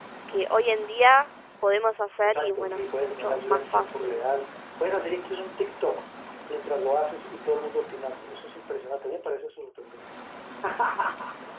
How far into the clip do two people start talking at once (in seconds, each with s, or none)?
2.2 s